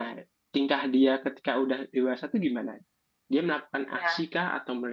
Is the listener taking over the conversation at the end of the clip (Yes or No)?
No